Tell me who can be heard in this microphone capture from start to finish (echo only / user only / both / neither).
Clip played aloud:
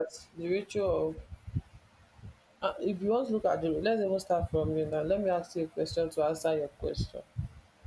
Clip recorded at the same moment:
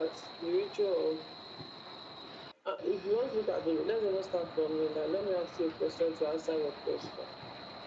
echo only